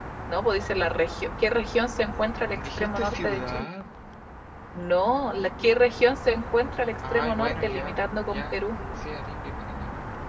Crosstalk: present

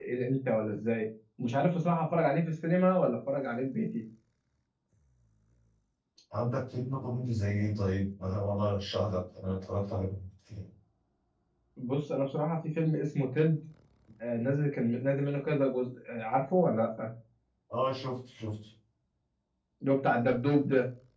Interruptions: none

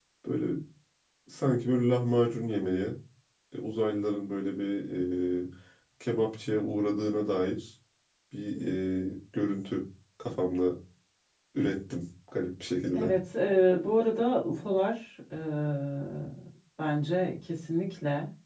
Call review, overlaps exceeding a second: none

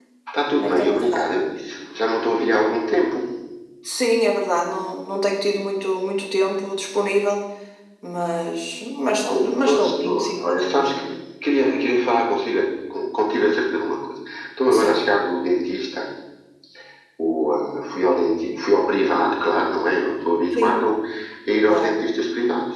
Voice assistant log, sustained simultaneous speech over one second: present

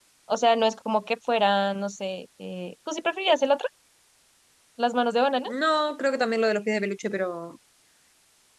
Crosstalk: none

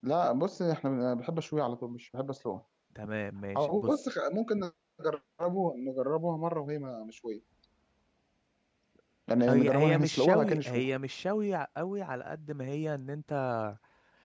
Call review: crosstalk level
present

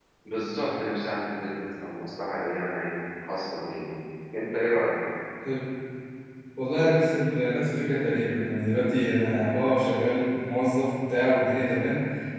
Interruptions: none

